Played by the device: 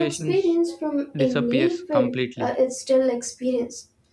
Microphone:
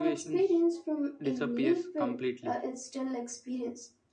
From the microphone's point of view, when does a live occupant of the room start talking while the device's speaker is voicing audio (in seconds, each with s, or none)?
none